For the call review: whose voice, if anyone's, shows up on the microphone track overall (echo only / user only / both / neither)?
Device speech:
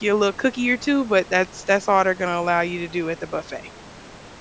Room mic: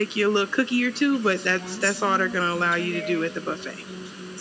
both